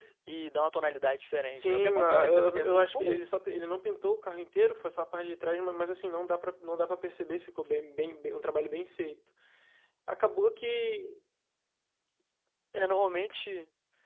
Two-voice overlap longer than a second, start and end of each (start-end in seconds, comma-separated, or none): 1.5-3.2